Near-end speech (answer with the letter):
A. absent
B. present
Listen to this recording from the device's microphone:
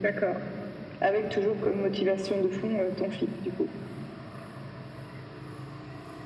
A